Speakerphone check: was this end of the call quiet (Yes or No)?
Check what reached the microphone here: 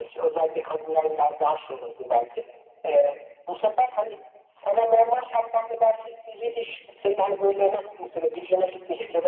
Yes